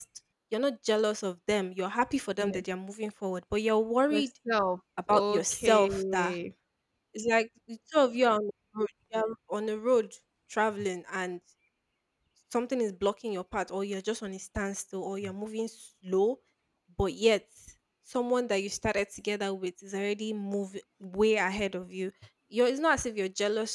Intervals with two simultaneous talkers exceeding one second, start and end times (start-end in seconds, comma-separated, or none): 5.1-6.4